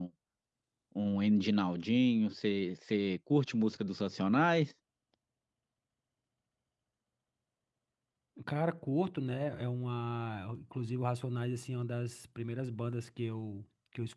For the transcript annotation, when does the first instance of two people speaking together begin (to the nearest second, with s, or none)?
none